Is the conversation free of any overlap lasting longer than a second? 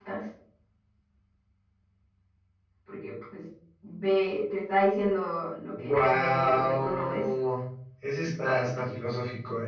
No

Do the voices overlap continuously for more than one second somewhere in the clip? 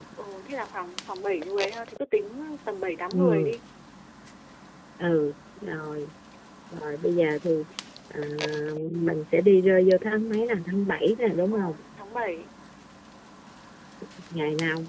No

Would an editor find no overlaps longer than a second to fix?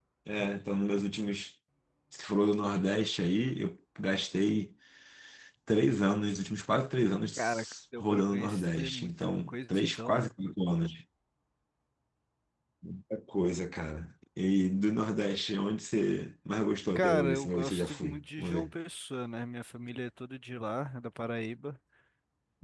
No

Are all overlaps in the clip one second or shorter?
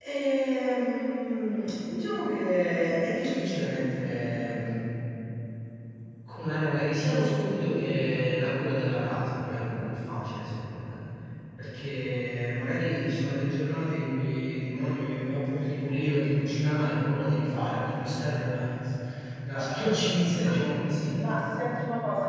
Yes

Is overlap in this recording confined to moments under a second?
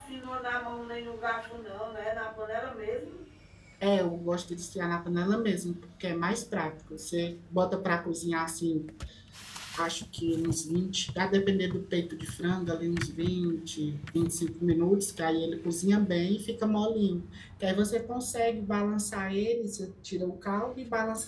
Yes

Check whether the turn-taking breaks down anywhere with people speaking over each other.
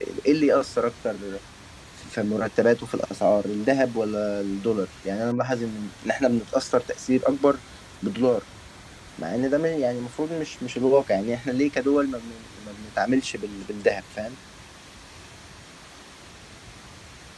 No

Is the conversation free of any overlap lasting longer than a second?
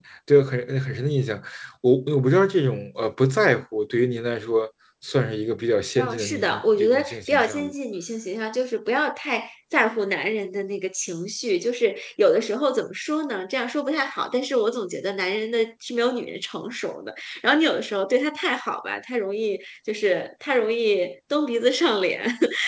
No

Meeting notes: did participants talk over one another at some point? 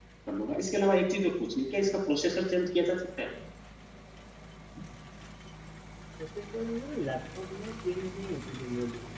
No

